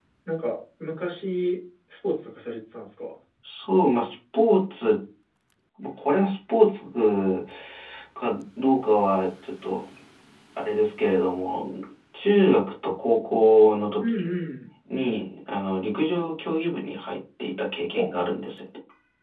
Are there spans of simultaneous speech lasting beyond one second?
No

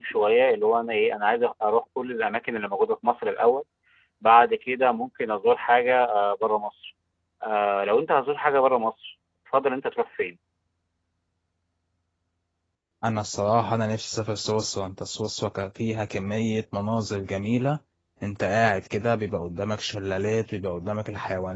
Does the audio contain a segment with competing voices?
No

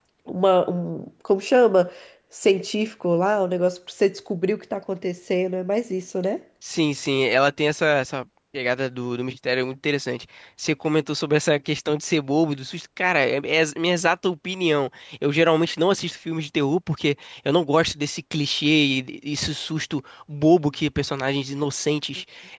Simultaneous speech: No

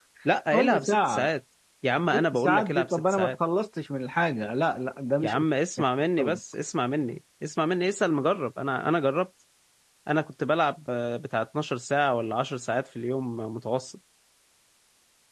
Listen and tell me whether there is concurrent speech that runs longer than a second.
Yes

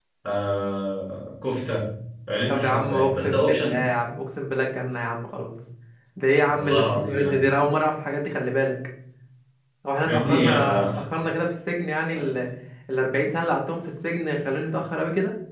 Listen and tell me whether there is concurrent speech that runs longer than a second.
Yes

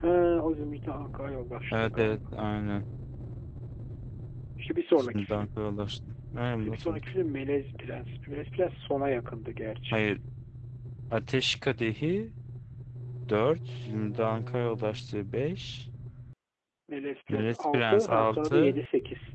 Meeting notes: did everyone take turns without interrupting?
No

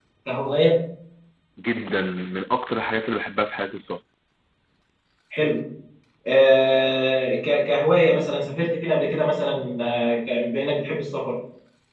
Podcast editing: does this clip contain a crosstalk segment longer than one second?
No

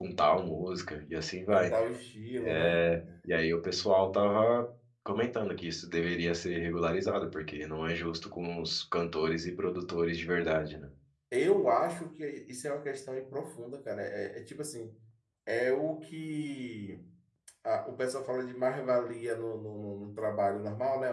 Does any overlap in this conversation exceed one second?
No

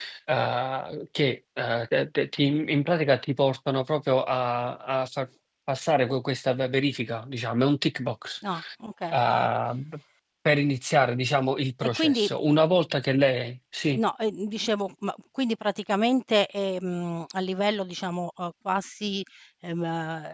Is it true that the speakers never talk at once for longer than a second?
Yes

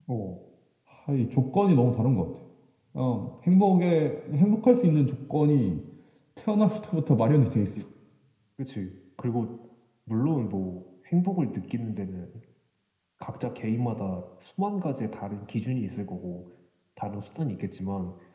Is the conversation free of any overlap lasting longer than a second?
Yes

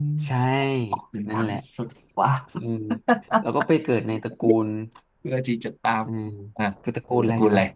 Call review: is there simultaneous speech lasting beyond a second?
No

